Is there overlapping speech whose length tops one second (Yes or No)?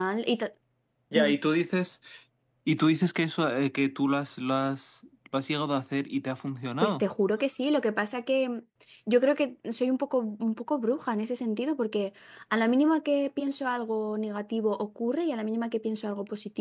No